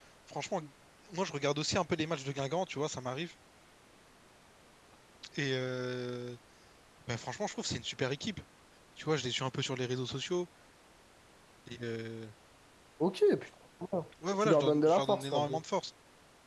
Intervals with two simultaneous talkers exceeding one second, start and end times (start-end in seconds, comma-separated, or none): 14.4-15.6